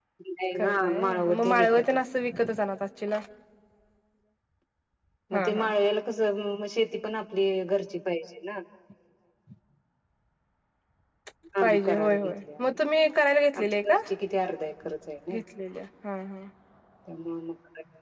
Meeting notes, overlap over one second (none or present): present